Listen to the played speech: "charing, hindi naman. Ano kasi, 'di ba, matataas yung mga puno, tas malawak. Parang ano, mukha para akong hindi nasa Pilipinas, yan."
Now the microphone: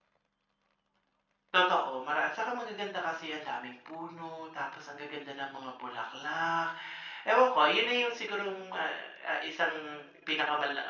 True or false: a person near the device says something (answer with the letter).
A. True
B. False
A